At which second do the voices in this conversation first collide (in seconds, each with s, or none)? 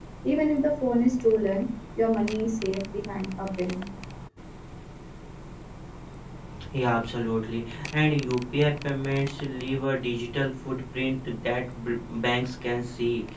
none